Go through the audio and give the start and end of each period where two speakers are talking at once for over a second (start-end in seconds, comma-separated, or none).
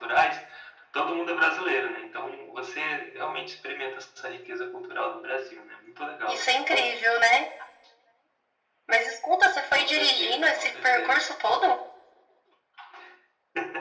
9.8-11.2